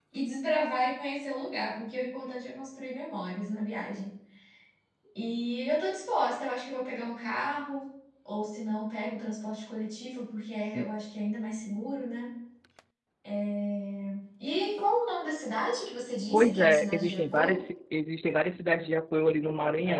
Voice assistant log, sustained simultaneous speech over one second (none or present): present